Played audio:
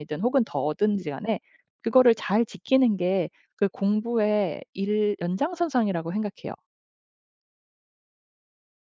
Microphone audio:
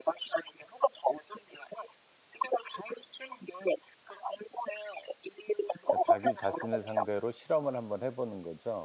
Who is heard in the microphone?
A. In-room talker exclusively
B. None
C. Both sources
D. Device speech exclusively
C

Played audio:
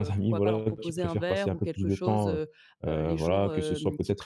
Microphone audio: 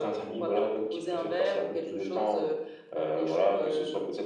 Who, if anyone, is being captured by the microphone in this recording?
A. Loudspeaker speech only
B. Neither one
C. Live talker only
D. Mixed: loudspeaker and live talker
A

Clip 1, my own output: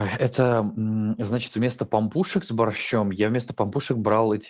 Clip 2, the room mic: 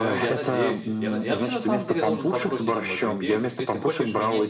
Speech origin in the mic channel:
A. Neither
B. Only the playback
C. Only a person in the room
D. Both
D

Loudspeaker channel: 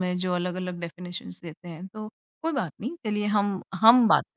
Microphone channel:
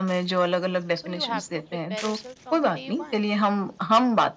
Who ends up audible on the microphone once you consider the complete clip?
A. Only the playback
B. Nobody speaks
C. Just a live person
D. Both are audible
D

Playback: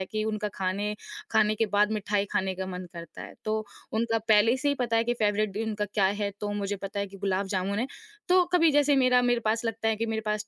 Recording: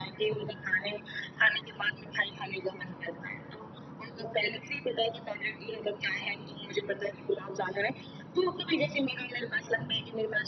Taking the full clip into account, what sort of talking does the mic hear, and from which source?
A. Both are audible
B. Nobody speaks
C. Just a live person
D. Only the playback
D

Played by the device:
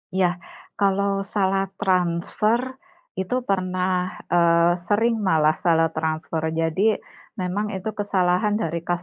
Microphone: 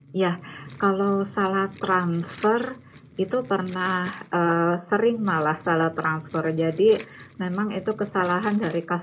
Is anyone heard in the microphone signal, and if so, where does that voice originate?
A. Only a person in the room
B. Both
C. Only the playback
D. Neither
C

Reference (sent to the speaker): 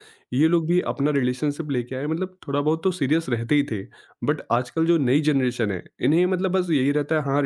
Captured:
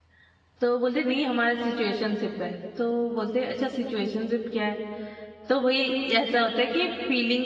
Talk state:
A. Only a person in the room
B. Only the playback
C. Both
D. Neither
A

